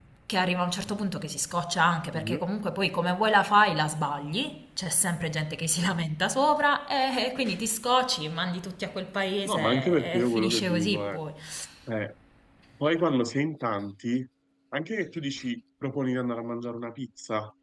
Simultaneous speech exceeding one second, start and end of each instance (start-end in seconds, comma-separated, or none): 9.4-11.2